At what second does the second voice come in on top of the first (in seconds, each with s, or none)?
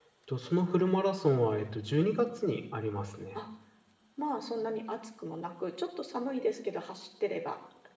none